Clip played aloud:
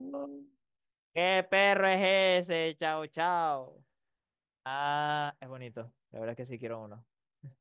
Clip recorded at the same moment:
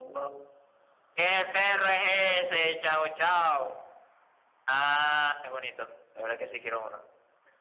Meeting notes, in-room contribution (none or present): none